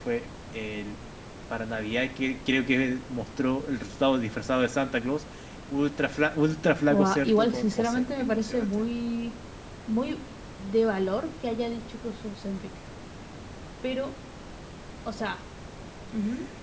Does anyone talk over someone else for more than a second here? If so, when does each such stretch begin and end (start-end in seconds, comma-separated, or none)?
6.9-8.9